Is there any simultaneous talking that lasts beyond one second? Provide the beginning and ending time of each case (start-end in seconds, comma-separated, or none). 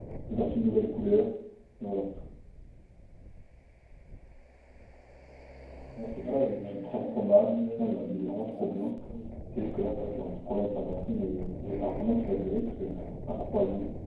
6.2-8.9